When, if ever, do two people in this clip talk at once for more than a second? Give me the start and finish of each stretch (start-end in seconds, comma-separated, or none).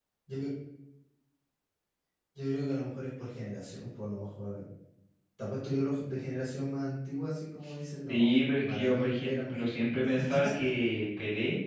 8.1-9.8